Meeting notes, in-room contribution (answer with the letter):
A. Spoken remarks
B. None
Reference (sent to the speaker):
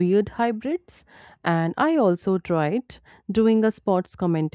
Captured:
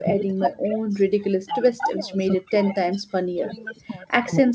A